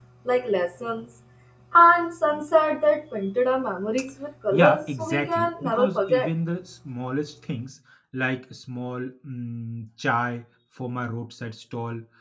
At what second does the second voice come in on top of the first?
5 s

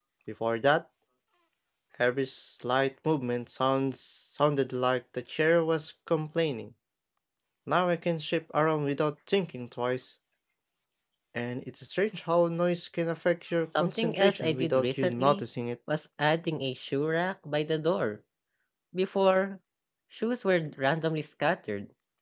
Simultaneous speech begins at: 14 s

